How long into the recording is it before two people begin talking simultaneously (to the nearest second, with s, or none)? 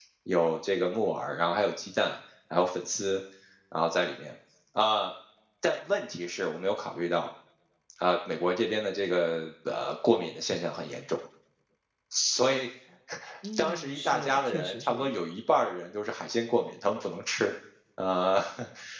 14 s